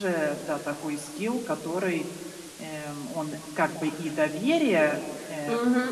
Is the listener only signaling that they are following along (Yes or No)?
No